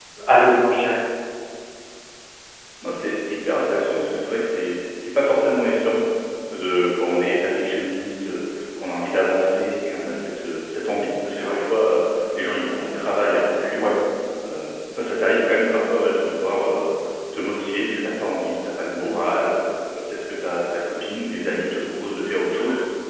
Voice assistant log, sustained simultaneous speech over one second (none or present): none